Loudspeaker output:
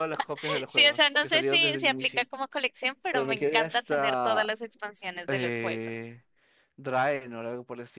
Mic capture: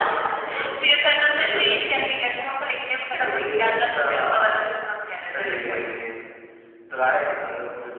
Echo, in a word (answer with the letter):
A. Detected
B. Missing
A